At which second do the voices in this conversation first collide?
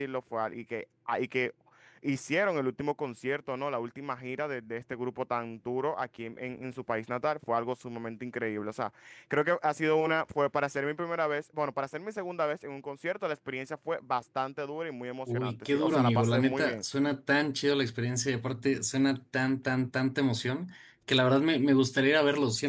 15.3 s

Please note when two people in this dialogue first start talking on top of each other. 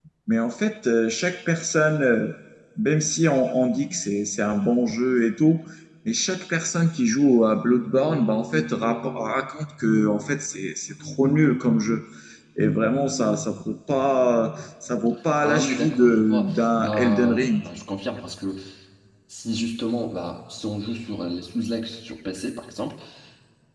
15.4 s

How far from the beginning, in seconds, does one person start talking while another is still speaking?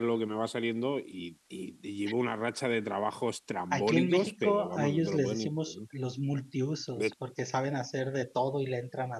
3.7 s

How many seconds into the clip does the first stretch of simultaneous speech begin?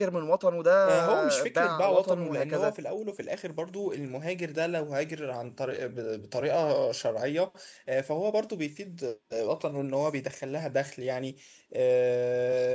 0.9 s

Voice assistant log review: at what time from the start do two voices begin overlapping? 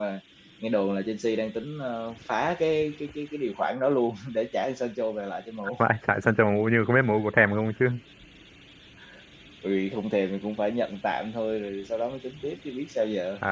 none

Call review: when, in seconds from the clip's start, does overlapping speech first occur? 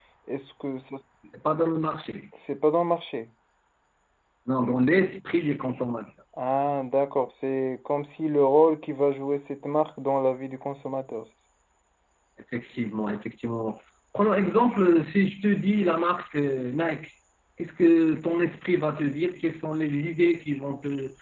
none

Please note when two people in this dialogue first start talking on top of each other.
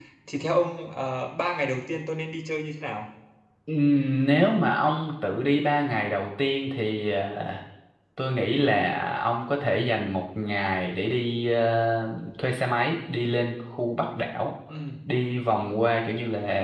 none

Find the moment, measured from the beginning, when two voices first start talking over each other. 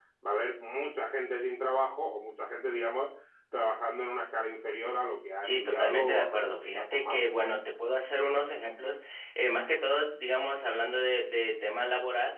5.4 s

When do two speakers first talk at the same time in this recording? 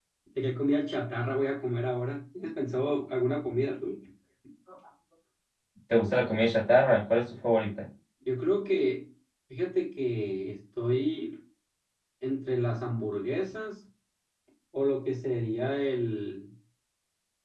none

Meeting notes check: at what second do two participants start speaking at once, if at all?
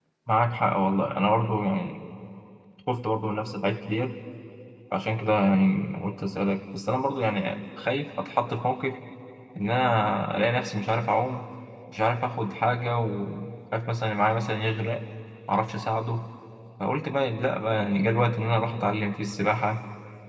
none

